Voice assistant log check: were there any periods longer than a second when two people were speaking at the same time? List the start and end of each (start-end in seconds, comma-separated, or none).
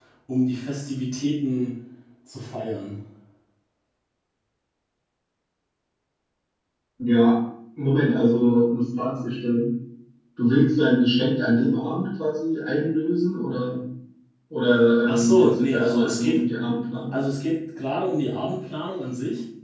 15.1-16.4